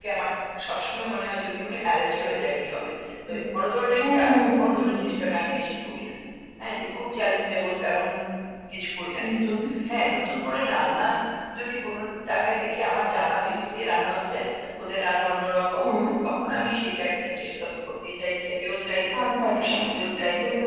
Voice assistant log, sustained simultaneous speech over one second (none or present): none